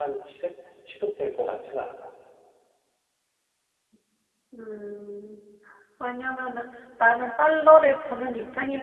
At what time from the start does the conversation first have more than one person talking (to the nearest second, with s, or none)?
none